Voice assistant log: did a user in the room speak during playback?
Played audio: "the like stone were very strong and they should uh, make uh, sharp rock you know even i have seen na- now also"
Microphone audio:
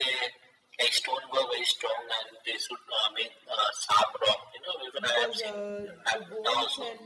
Yes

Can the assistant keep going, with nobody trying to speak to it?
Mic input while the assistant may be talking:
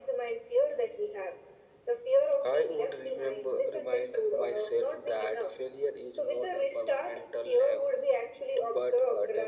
Yes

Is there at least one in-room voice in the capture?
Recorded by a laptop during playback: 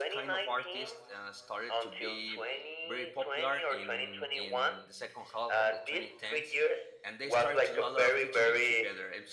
Yes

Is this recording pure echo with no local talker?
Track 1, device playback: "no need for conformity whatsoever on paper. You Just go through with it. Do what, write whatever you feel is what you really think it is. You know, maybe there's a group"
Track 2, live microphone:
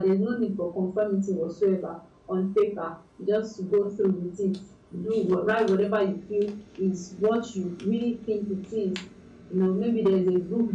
Yes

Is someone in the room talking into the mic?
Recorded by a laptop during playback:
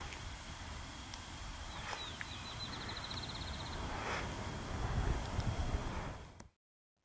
No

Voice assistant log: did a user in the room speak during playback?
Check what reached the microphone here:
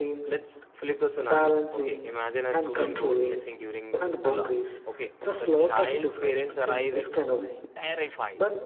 Yes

